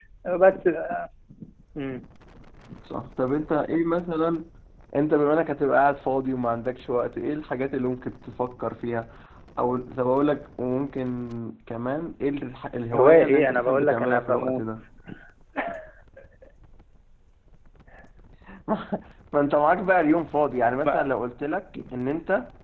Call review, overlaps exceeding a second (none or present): present